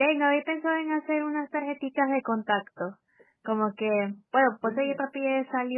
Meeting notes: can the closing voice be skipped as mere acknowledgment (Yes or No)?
Yes